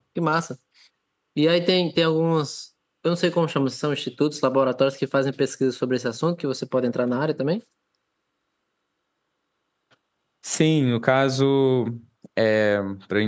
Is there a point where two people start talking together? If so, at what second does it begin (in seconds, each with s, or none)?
none